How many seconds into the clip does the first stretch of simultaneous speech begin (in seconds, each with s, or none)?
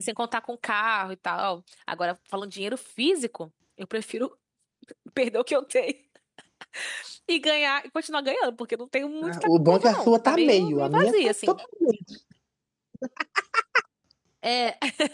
9.2 s